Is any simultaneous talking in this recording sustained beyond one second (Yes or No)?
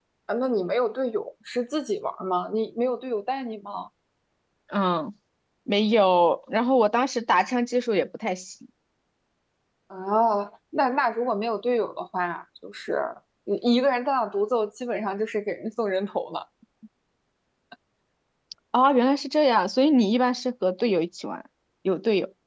No